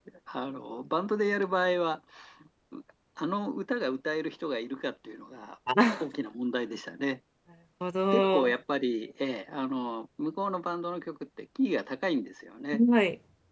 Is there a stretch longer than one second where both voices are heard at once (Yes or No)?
No